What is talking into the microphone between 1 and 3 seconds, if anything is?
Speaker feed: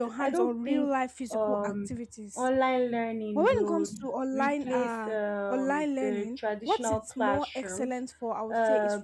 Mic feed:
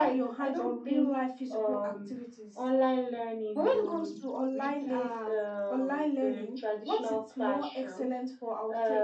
echo only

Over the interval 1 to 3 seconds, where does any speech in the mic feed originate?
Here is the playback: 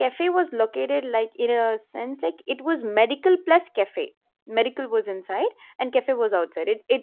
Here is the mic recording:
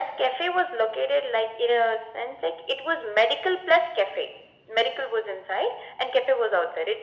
echo only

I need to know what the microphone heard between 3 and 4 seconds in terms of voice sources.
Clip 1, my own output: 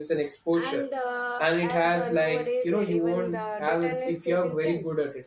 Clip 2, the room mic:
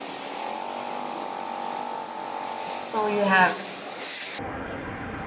user only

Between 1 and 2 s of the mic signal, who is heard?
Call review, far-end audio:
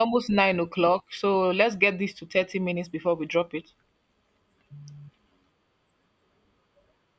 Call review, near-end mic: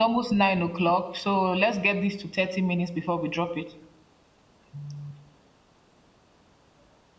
echo only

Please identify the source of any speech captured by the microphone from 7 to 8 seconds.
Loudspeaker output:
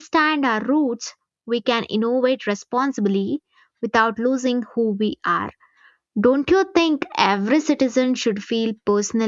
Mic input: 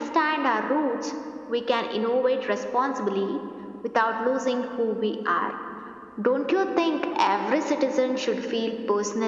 echo only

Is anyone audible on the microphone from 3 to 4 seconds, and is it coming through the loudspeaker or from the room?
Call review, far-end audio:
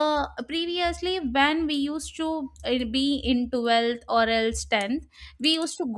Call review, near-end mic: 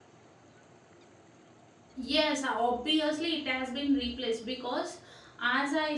user only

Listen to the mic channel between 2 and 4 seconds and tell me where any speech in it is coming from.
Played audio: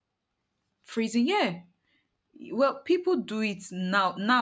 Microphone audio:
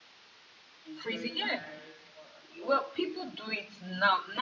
both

